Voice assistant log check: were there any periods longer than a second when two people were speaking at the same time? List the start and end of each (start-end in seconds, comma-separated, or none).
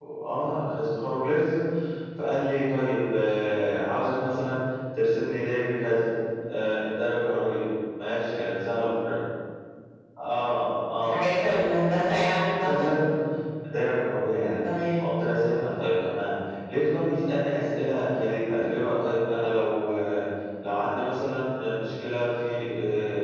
11.0-12.8